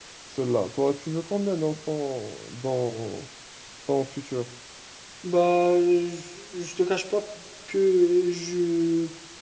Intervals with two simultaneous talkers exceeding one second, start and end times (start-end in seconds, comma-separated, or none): none